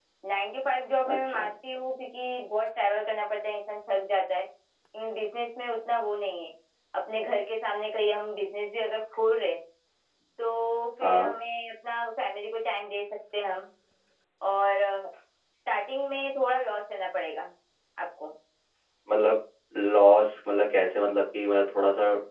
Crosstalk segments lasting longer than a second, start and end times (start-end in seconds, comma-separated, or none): none